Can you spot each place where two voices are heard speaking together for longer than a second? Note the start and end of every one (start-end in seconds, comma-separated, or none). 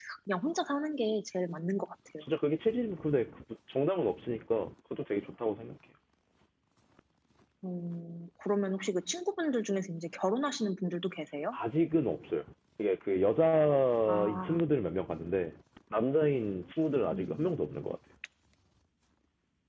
none